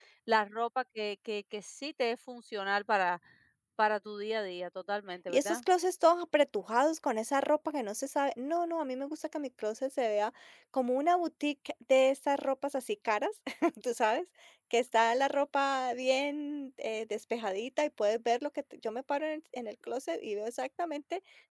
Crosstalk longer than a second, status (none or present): none